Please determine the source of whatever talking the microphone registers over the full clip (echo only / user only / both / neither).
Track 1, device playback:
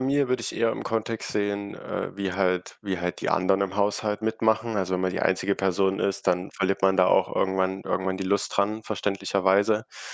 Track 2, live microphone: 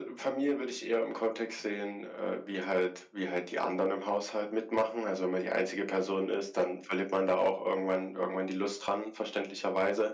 echo only